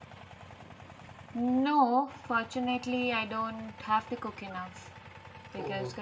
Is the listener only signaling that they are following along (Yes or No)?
Yes